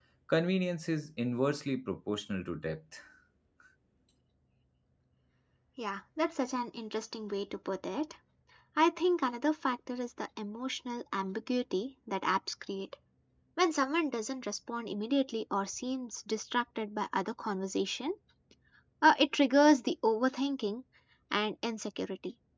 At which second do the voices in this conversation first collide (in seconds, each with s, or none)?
none